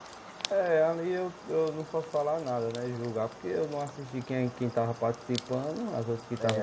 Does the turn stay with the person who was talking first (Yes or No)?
No